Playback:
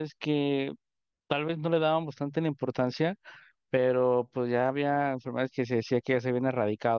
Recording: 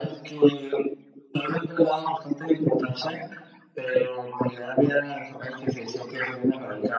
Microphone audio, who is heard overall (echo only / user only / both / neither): echo only